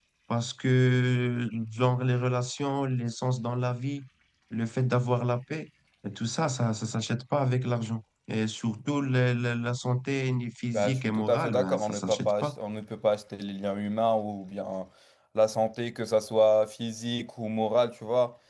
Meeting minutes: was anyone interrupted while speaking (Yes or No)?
Yes